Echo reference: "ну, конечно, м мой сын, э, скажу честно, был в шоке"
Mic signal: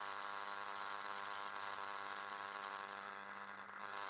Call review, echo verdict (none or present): none